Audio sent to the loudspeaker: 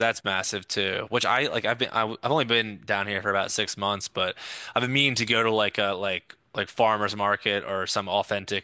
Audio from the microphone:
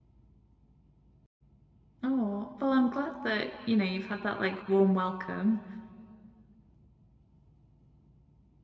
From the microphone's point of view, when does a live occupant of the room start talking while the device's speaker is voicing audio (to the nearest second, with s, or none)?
2 s